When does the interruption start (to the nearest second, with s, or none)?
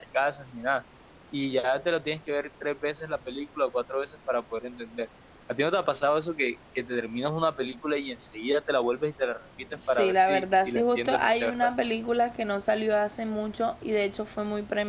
10 s